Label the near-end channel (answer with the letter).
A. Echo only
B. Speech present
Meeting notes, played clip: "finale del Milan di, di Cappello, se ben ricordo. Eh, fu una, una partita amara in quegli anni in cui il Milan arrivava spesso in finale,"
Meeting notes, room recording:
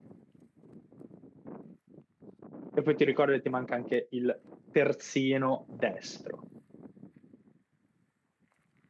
B